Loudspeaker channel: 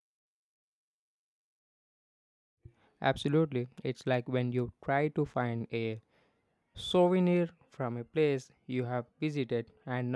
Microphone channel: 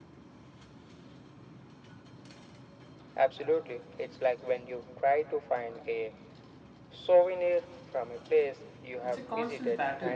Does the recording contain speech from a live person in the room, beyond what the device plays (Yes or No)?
Yes